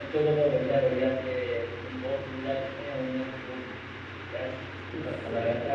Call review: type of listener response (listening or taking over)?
taking over